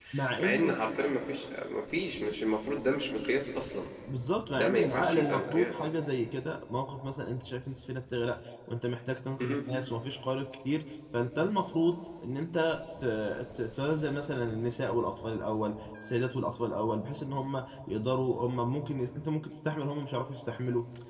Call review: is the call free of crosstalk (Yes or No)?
No